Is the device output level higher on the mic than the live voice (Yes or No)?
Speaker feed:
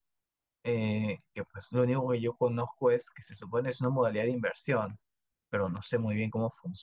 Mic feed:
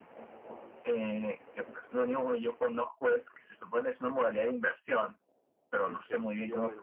Yes